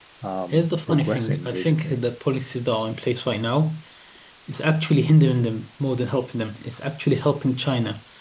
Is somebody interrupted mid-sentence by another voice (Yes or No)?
Yes